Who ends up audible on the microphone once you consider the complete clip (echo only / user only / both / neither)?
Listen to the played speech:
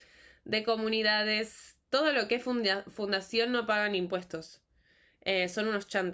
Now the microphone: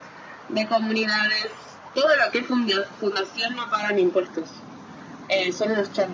echo only